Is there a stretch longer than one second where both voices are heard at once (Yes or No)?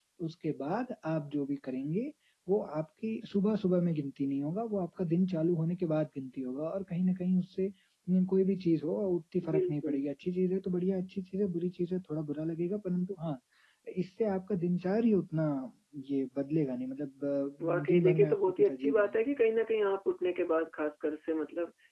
Yes